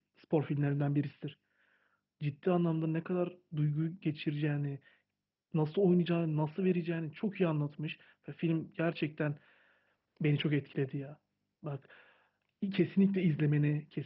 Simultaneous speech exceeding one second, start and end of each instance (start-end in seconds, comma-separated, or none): none